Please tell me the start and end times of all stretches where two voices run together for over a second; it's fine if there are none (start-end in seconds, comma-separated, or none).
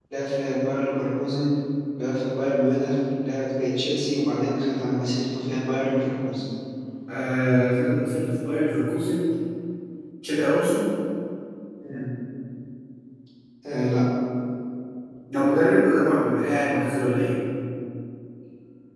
none